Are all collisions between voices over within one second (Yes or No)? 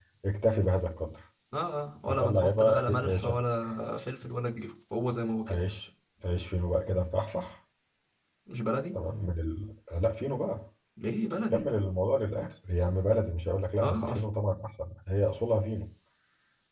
No